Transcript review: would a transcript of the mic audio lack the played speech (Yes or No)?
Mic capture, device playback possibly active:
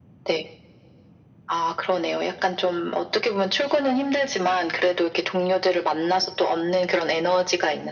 No